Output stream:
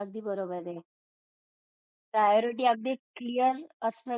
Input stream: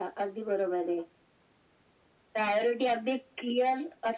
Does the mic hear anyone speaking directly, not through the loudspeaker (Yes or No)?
No